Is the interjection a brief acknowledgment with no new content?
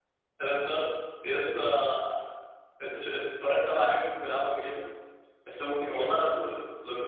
Yes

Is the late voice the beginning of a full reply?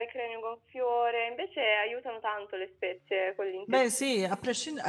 Yes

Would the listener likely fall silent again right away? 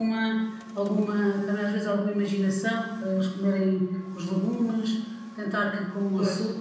Yes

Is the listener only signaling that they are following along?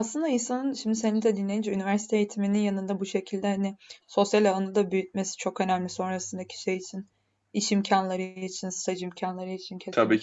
No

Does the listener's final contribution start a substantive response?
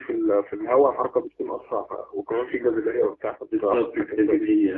Yes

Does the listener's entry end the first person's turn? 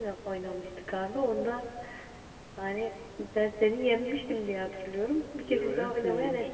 Yes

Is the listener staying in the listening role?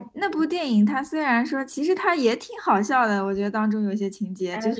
Yes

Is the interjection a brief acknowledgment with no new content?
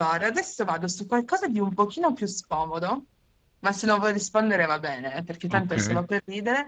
Yes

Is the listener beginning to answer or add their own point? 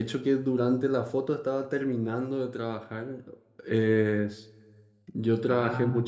No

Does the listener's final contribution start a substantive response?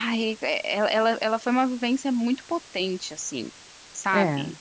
No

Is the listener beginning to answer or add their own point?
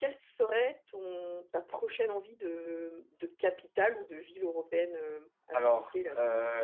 Yes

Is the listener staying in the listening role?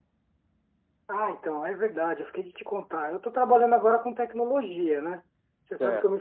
Yes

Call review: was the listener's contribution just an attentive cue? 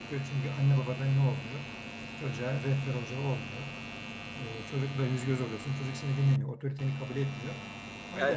No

